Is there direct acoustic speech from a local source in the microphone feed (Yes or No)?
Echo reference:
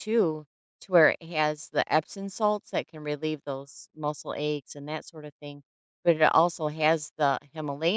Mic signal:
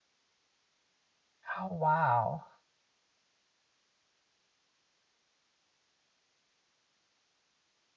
Yes